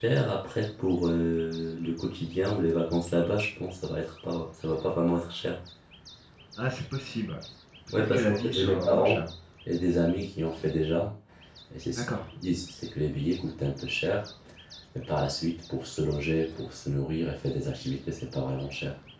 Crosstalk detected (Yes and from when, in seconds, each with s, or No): Yes, from 7.9 s